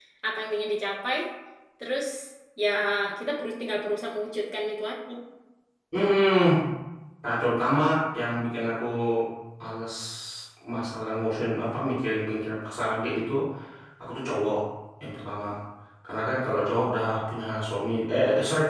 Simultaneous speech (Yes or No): No